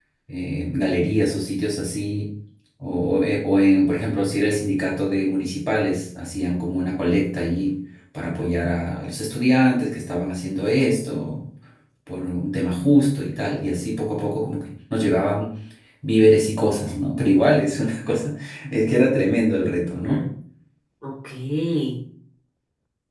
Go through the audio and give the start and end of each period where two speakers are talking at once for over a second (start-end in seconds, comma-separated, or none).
none